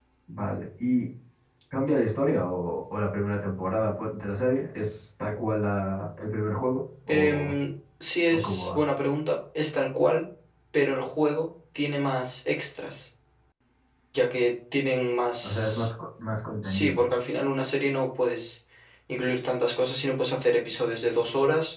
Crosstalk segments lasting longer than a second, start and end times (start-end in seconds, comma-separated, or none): none